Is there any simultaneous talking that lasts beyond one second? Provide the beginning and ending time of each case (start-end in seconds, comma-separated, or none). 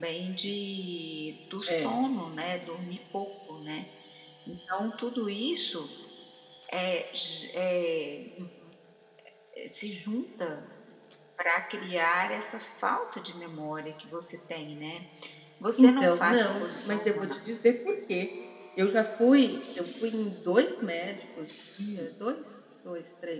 15.8-17.4